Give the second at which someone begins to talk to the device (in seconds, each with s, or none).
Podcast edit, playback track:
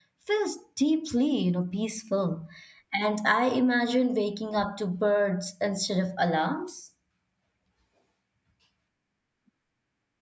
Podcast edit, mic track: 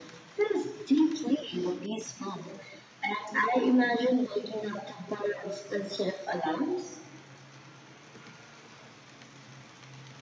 none